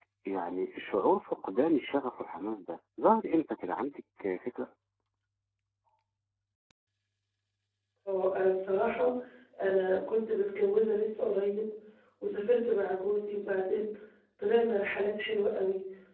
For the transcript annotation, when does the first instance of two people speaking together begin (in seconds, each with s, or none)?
none